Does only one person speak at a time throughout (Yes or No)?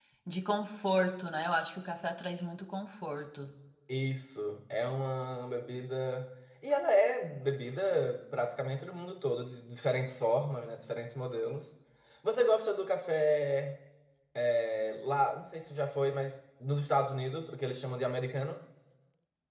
Yes